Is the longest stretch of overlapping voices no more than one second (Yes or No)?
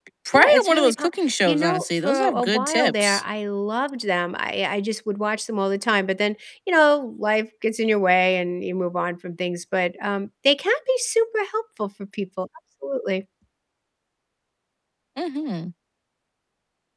No